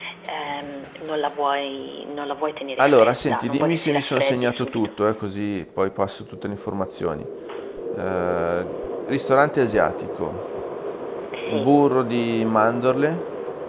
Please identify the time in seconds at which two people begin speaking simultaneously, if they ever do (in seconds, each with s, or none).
2.8 s